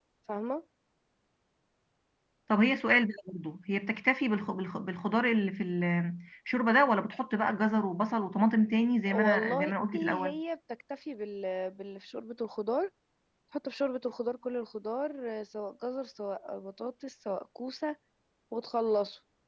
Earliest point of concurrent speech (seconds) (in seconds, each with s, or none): 9.1 s